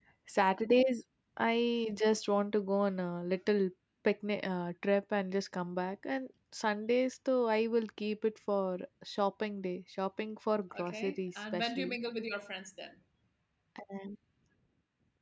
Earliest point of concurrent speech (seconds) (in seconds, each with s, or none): 10.7 s